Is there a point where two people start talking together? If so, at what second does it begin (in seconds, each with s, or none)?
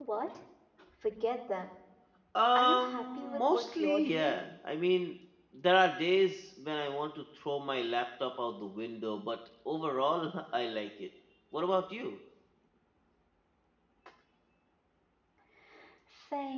2.5 s